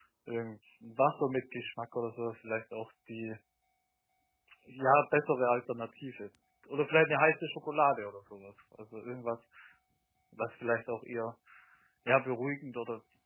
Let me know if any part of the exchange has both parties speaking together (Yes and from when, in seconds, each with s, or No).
No